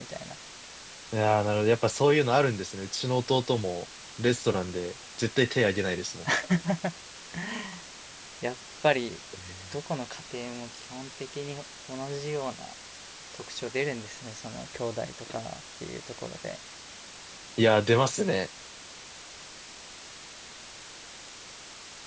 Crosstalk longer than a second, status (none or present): none